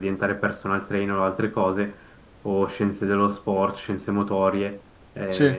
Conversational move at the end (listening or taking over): listening